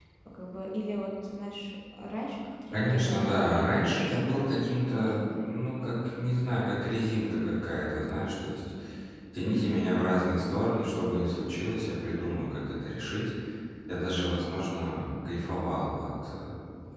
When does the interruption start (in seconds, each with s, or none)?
2.7 s